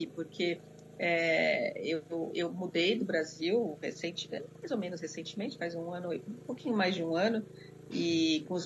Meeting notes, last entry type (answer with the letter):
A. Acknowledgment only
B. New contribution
A